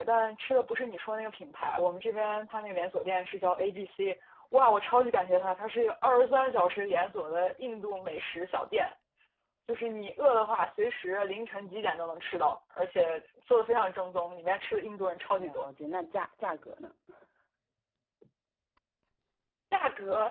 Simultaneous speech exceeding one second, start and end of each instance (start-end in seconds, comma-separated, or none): none